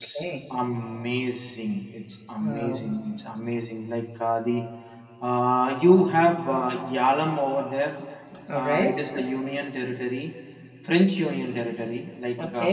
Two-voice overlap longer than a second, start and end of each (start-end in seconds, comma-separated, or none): none